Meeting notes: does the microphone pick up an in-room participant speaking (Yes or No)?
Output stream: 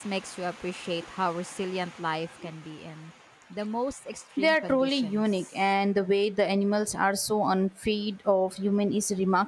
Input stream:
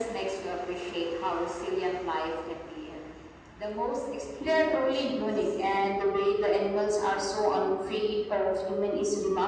No